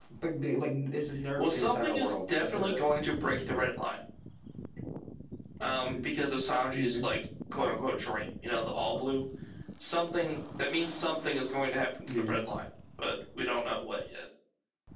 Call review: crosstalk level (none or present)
present